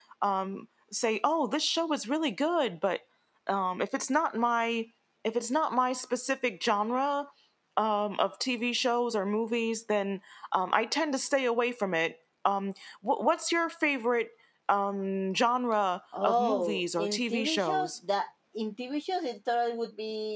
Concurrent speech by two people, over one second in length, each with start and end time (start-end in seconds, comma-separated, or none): 16.2-17.9